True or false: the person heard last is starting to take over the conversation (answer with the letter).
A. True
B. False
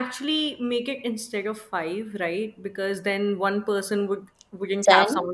B